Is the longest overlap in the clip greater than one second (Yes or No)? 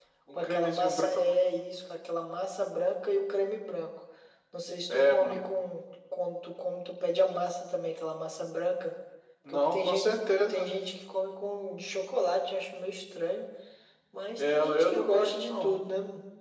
Yes